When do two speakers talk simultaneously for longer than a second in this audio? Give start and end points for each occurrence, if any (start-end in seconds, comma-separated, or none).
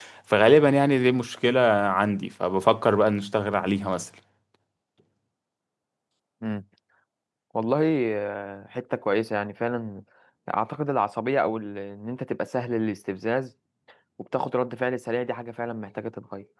none